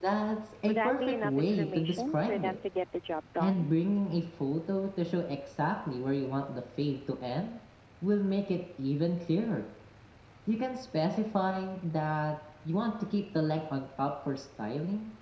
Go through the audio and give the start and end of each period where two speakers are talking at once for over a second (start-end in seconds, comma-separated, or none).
0.7-2.6